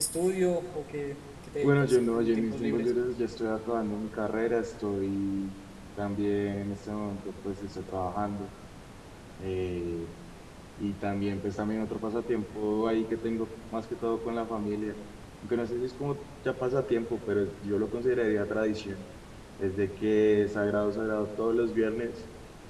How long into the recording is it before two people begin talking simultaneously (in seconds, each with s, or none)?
1.6 s